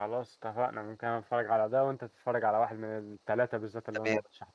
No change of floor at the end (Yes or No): No